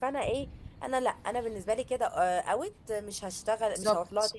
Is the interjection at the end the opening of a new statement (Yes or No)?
No